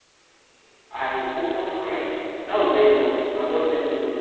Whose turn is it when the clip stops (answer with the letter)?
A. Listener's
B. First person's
B